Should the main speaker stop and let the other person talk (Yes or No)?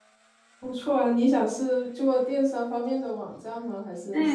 Yes